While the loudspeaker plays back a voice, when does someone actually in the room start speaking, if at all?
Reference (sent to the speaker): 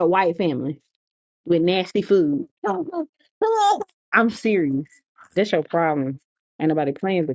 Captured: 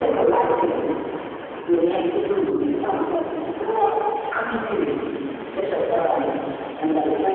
none

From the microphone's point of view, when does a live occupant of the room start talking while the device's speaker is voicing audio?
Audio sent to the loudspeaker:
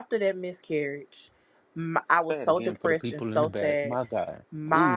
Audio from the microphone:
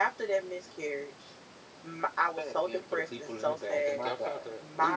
4 s

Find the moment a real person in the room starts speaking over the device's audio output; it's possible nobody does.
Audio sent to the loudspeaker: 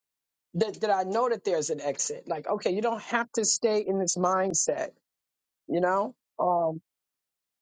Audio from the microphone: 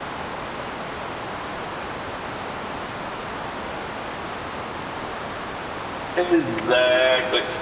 6 s

